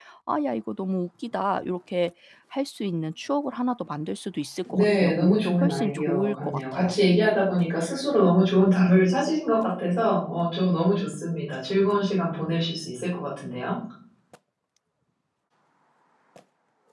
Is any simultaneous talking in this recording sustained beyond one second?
Yes, from 4.6 s

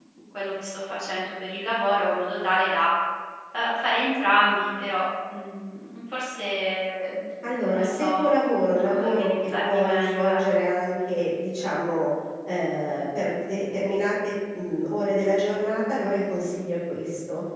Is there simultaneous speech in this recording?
Yes, from 7.4 s

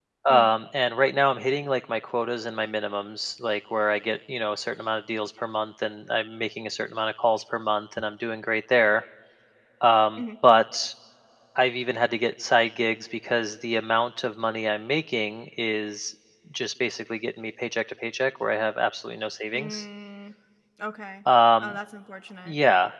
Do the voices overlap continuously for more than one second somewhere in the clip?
No

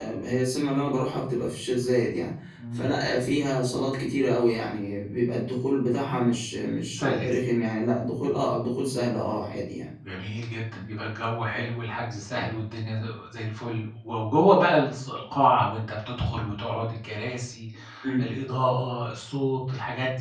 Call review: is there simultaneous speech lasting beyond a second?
No

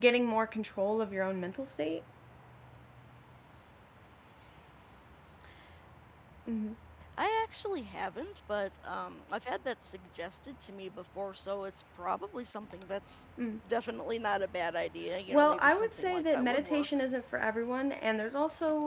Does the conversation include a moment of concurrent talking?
Yes, from 15.3 s

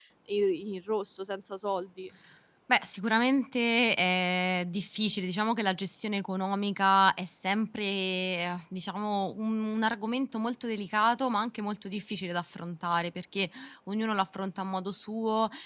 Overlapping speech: No

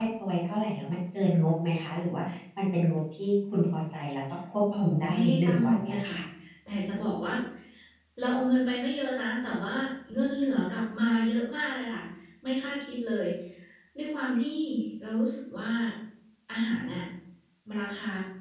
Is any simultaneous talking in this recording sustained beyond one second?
Yes, from 4.7 s

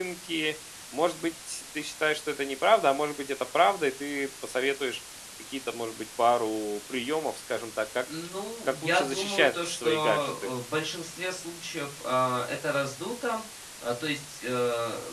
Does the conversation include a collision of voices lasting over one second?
Yes, from 8.8 s

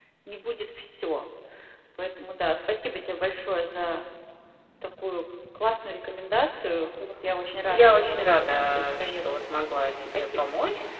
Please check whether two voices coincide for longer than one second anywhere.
Yes, from 7.7 s

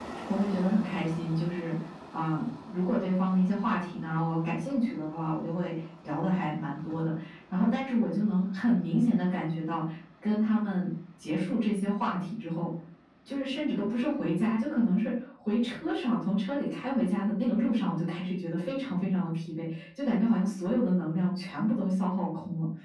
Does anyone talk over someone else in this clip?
No

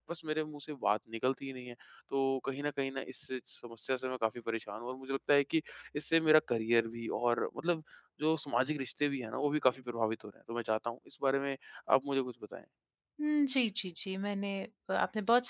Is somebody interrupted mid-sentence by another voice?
No

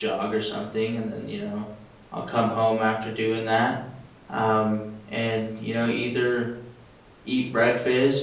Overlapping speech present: No

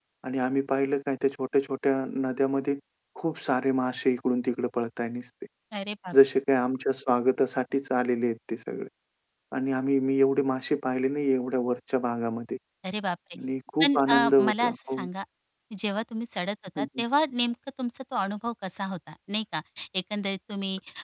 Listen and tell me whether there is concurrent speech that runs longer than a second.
Yes, from 13.8 s

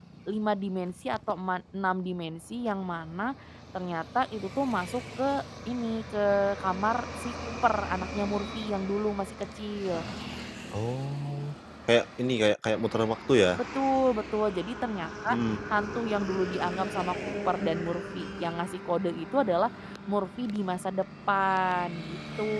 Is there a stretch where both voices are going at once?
No

